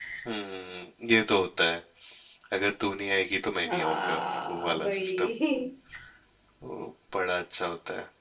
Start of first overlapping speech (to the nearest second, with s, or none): 4 s